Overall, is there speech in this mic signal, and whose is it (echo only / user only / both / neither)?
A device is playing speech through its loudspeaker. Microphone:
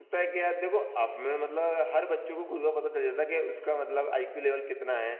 user only